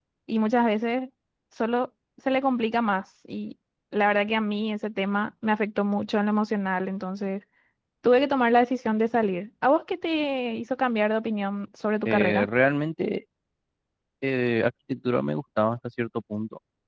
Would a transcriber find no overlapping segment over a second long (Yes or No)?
Yes